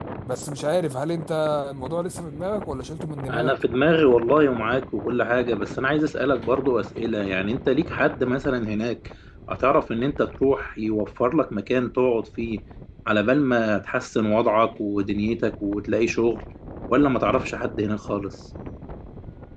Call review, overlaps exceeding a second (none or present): none